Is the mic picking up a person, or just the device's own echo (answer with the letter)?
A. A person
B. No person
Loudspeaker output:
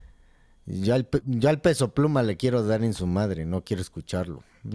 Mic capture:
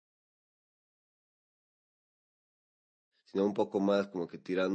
A